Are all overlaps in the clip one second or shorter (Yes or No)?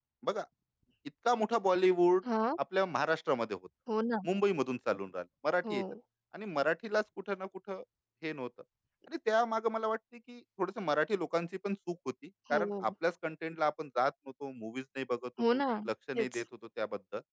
Yes